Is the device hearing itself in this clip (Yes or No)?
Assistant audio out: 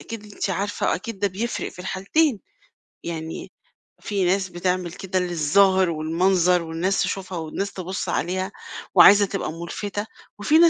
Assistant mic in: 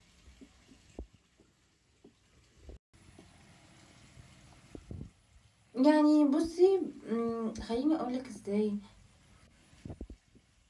No